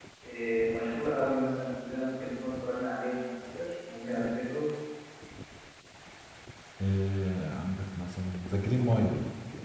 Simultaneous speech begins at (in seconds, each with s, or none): none